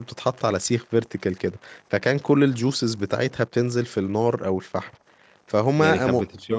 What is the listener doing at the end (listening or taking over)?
taking over